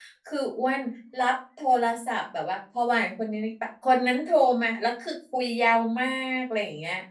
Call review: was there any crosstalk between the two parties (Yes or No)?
No